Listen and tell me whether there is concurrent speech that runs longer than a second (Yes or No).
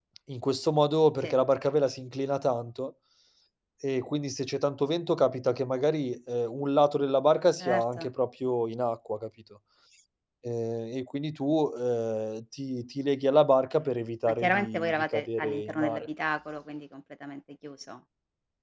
Yes